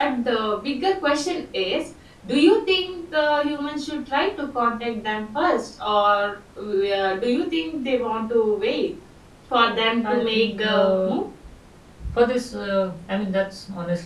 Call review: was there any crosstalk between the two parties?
Yes, from 9.6 s

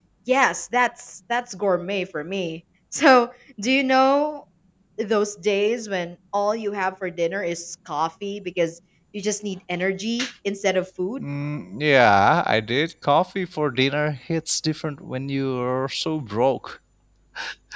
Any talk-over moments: No

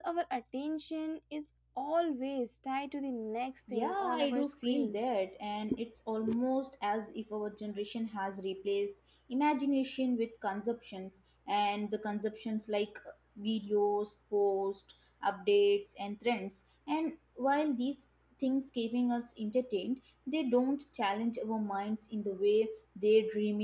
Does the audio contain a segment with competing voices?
Yes, from 3.7 s

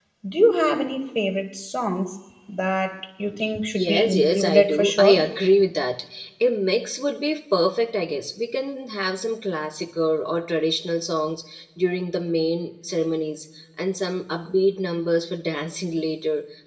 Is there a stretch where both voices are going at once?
Yes, from 3.7 s

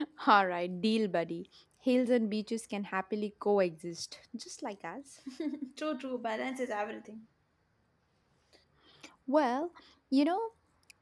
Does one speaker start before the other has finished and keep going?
No

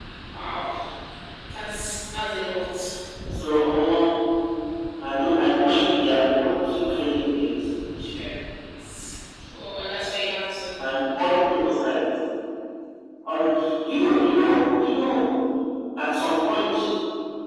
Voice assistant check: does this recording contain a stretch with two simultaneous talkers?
No

